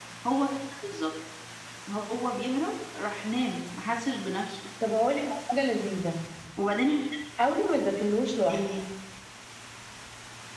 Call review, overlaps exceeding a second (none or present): none